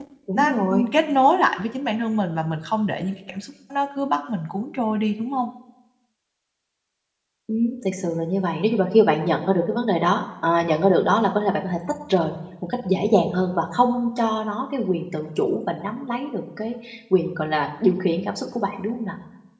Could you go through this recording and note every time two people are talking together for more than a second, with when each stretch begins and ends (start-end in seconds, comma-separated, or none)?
none